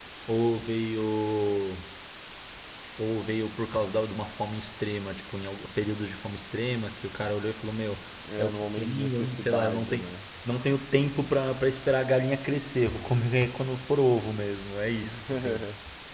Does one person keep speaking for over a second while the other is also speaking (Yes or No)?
Yes